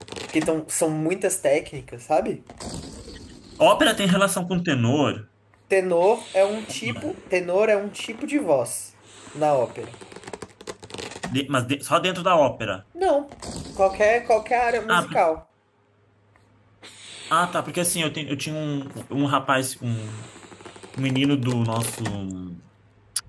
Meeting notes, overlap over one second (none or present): none